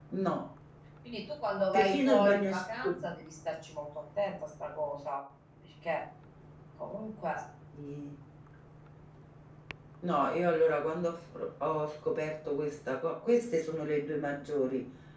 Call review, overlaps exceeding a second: present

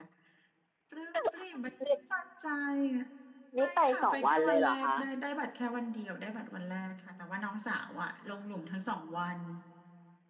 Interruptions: present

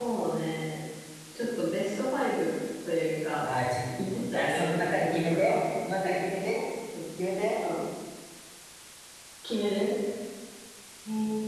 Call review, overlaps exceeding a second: present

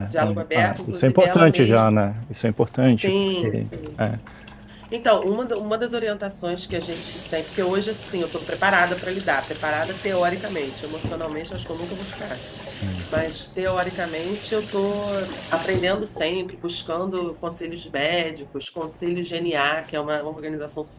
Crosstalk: present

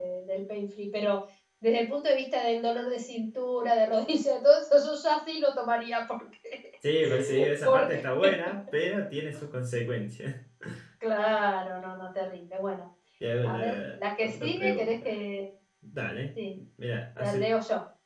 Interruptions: present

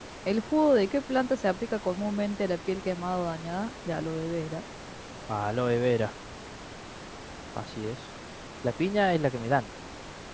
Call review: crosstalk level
none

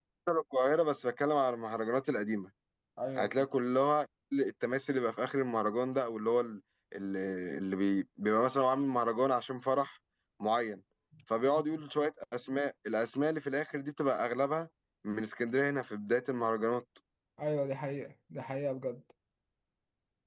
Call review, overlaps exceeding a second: none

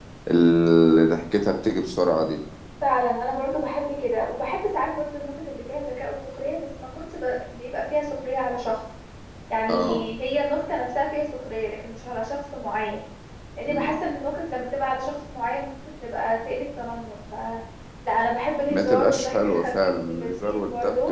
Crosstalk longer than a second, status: present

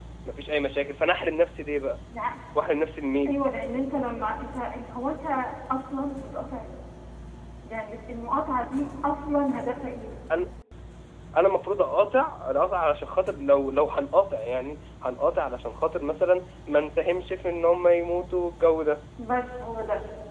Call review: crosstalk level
none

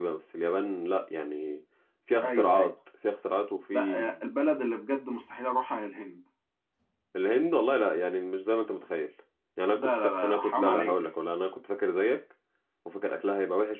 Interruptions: present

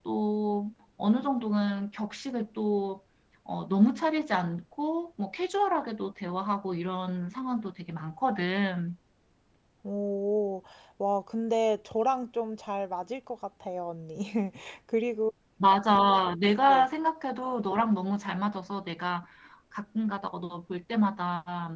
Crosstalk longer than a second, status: none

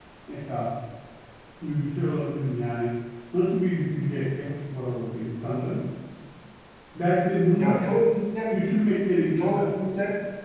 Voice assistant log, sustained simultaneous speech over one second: none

